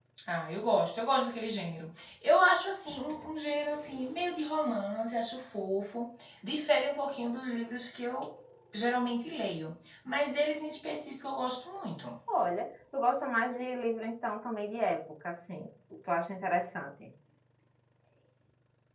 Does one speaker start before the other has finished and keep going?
No

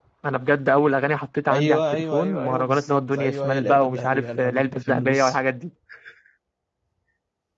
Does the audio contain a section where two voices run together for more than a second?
Yes, from 1.5 s

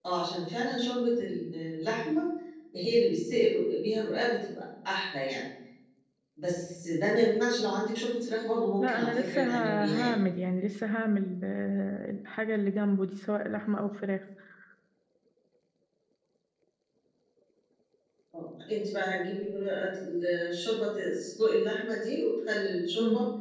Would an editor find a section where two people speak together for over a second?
Yes, from 8.8 s

